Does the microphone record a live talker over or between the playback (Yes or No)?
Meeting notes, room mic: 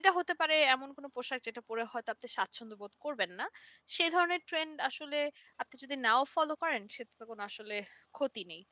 Yes